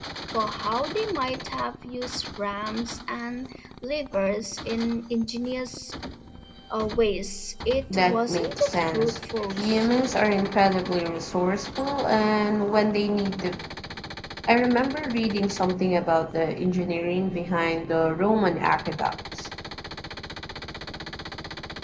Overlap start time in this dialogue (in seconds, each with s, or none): 7.9 s